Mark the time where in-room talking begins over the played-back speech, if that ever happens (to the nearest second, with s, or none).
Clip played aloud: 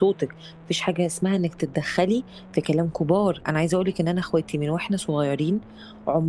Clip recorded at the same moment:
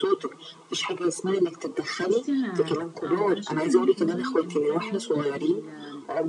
2 s